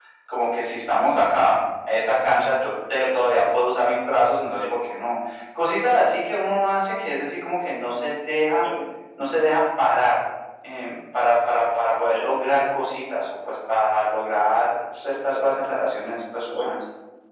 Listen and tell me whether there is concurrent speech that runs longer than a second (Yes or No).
No